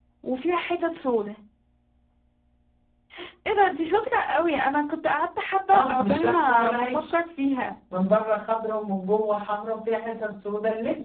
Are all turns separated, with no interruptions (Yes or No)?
No